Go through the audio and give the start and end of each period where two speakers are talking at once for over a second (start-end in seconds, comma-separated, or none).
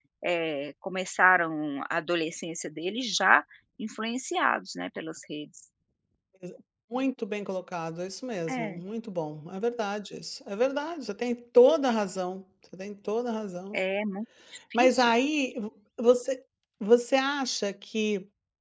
none